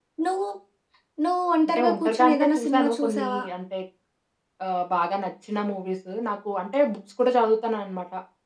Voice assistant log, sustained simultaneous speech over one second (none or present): present